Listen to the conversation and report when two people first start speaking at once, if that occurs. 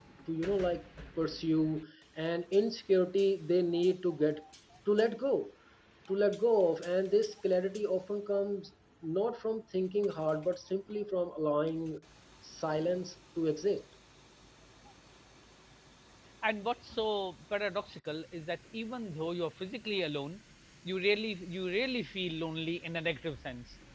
none

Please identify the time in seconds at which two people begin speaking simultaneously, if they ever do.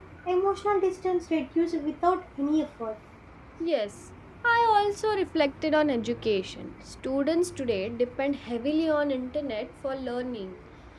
none

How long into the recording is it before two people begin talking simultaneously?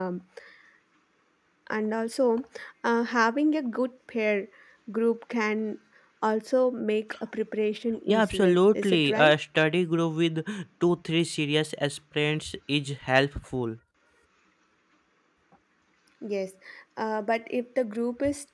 8.1 s

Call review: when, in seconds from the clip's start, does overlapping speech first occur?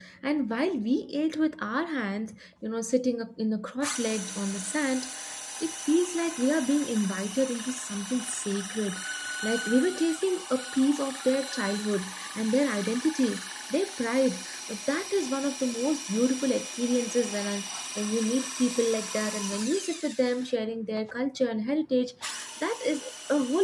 none

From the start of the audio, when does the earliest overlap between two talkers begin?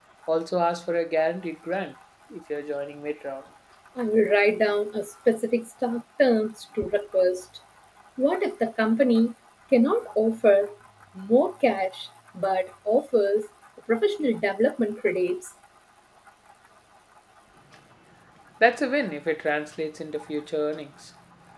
none

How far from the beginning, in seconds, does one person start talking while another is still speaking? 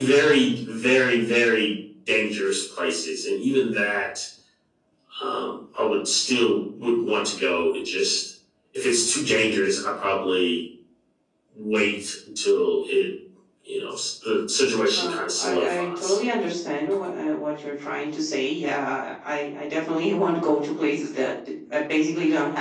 14.9 s

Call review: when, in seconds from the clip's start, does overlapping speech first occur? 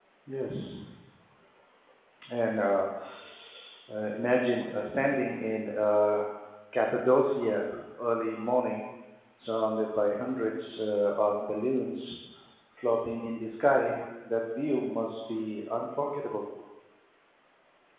none

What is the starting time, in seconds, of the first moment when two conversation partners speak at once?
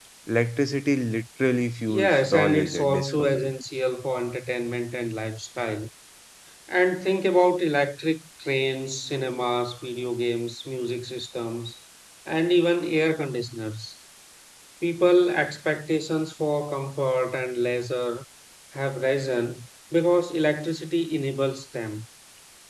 1.9 s

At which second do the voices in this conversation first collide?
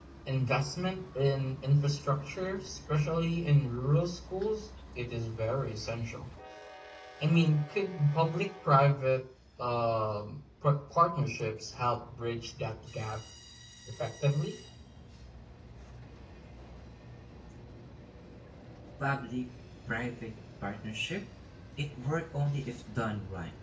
none

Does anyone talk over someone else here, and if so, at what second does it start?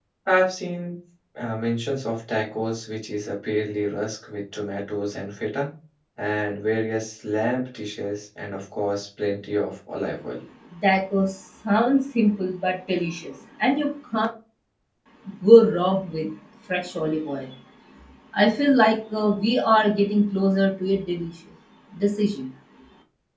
none

